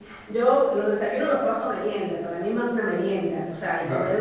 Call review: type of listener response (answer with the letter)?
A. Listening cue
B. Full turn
A